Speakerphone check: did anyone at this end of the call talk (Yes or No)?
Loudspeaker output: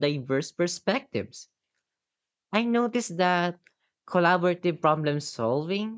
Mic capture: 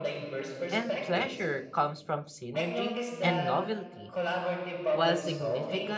Yes